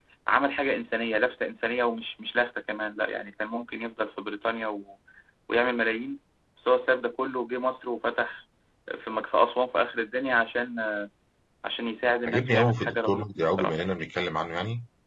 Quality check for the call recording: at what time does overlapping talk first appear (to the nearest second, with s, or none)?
12 s